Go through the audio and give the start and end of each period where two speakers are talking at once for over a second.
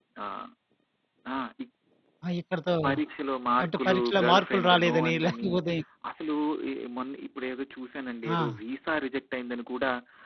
3.6-5.5

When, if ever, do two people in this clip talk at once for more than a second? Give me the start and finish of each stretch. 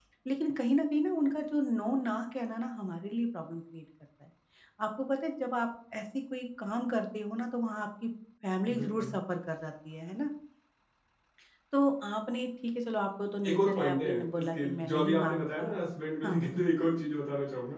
13.5-15.7

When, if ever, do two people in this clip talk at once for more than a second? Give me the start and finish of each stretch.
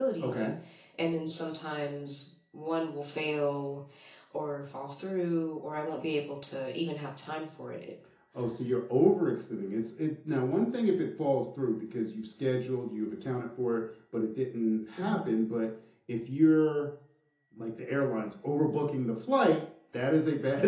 none

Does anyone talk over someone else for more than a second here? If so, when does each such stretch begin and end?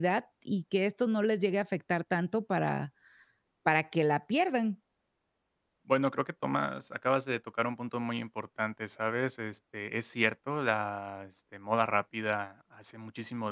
none

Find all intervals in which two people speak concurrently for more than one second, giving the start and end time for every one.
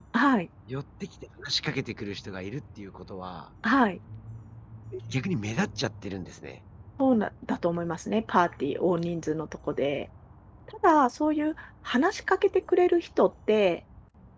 none

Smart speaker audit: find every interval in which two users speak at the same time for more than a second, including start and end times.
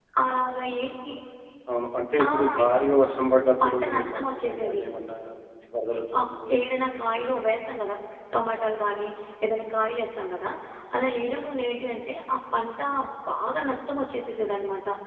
3.6-4.8

